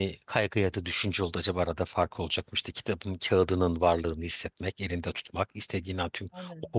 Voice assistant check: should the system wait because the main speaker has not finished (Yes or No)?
Yes